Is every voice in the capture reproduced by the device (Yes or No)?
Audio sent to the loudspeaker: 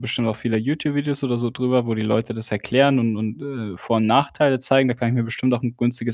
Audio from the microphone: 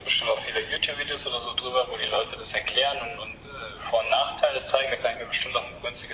Yes